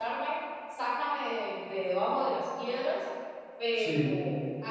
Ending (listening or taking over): listening